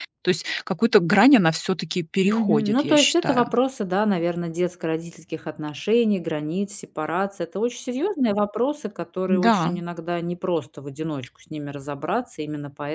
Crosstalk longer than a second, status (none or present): present